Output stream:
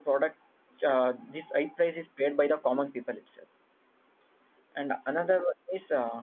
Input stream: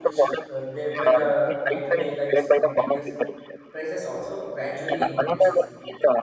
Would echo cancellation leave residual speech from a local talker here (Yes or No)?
Yes